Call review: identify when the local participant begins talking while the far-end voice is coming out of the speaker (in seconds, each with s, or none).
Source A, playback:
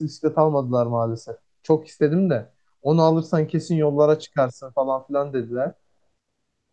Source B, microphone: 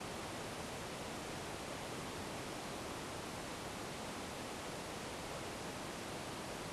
none